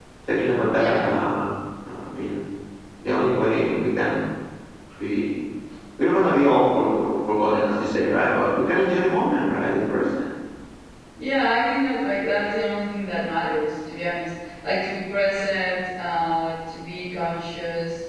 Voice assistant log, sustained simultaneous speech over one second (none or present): none